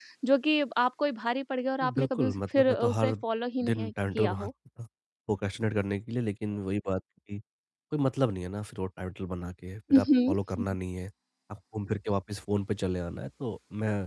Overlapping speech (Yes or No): Yes